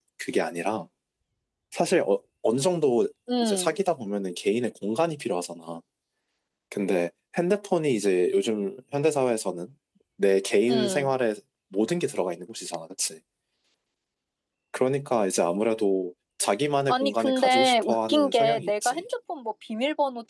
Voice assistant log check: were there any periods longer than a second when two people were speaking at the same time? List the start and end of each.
16.9-19.1

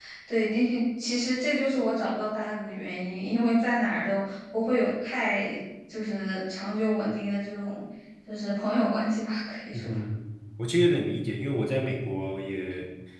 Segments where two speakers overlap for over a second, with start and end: none

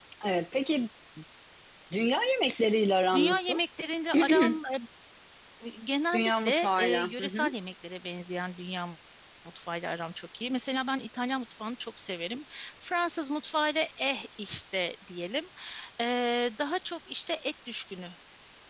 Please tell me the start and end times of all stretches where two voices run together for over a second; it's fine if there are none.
6.1-7.5

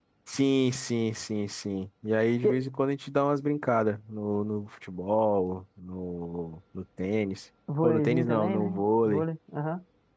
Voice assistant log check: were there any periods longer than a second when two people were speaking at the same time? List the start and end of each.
7.8-9.2

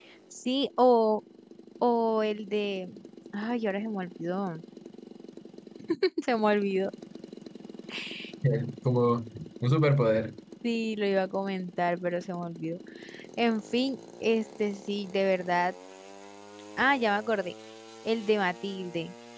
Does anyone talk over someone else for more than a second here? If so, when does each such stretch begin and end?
none

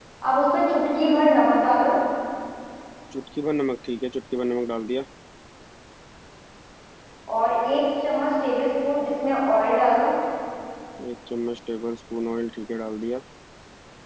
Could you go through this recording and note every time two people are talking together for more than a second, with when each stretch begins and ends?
none

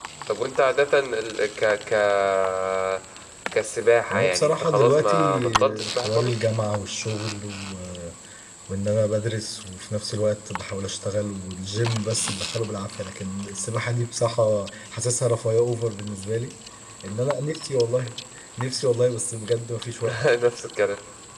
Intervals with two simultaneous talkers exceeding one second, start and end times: 4.1-6.4

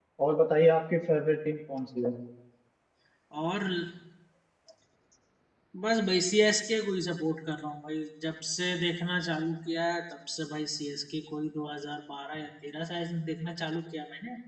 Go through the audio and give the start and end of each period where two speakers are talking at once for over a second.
none

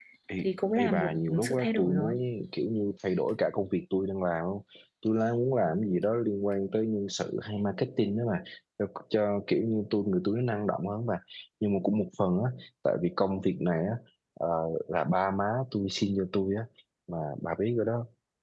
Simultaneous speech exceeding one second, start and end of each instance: 0.8-2.1

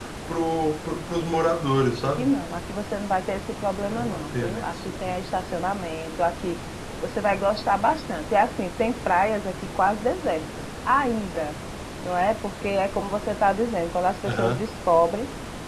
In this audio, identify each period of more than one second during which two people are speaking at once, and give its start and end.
3.9-5.1

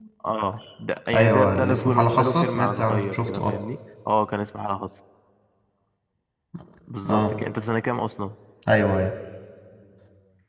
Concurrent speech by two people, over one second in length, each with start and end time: 1.1-3.6

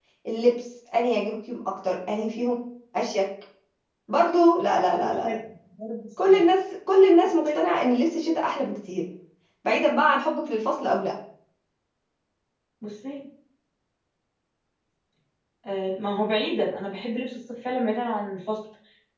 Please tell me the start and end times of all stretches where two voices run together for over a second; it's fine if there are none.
none

